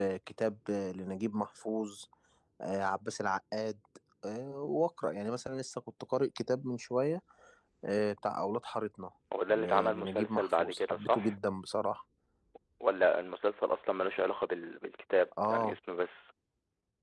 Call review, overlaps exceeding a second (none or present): present